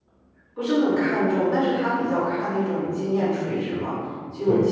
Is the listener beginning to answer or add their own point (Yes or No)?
No